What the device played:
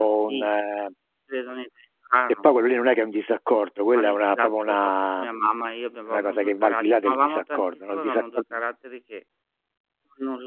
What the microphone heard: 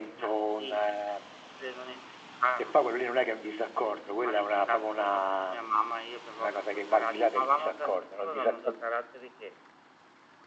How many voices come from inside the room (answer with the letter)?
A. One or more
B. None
B